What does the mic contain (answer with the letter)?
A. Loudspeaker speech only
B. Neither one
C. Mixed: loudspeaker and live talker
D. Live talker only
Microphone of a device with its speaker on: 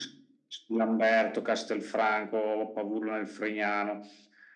A